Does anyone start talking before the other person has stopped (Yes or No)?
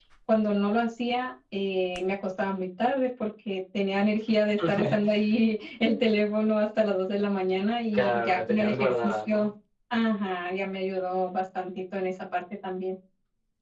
Yes